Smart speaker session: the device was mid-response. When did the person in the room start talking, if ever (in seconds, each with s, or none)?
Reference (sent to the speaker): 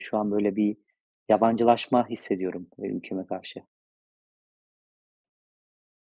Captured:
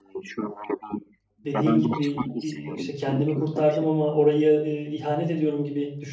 1.4 s